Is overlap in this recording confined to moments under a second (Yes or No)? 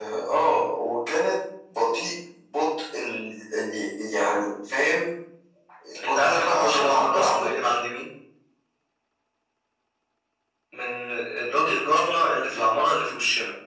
No